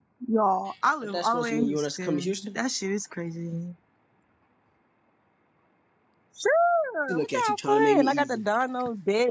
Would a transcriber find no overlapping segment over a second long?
No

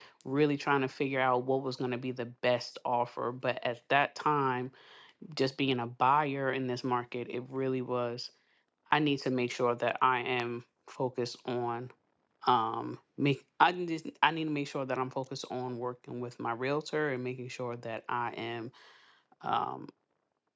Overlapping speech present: No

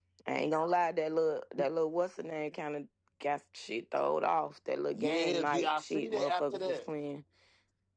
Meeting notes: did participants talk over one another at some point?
Yes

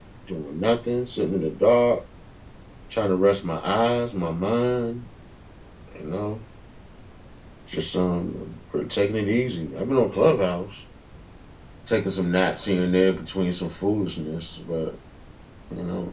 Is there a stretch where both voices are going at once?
No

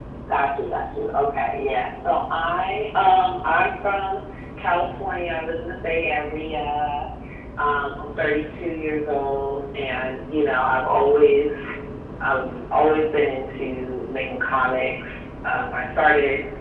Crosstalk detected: No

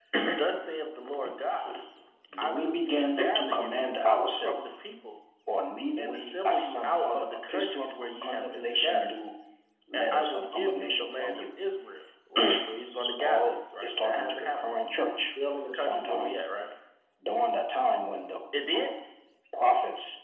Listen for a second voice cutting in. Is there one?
Yes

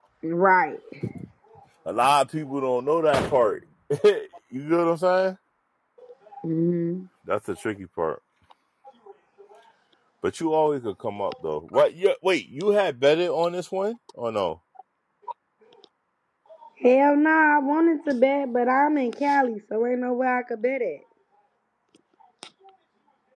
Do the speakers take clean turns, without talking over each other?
Yes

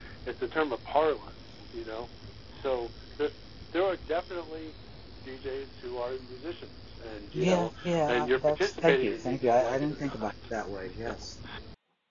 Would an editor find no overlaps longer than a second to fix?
No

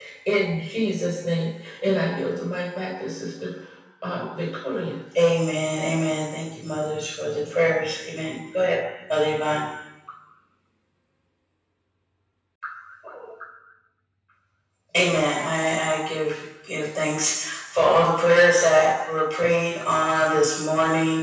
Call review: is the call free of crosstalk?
Yes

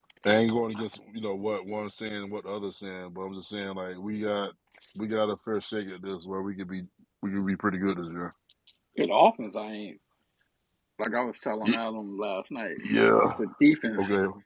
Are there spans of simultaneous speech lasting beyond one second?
No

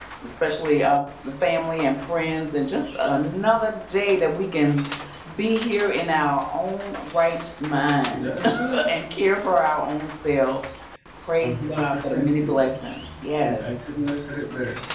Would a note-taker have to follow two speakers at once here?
Yes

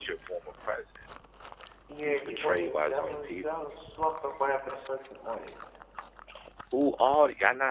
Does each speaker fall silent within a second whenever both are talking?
No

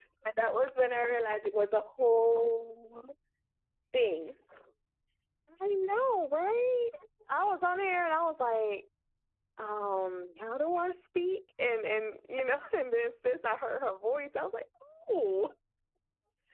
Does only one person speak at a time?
Yes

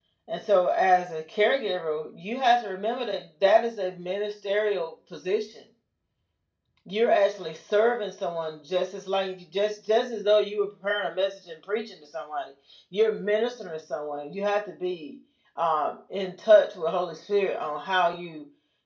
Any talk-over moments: No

